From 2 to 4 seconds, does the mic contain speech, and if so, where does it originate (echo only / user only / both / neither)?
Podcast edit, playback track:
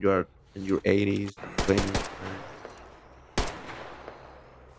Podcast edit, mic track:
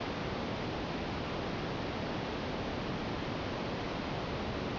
neither